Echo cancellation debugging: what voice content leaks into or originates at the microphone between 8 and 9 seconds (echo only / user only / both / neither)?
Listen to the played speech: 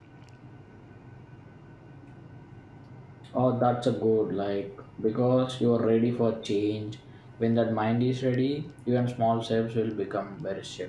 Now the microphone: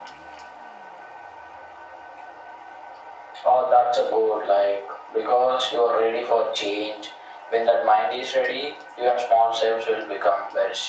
echo only